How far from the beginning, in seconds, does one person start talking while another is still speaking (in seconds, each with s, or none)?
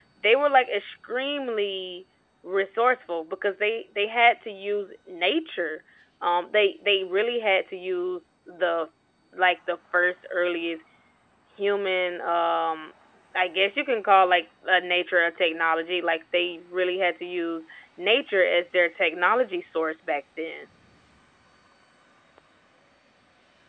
none